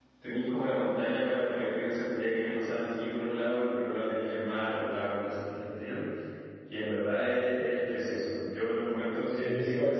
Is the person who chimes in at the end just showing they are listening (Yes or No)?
No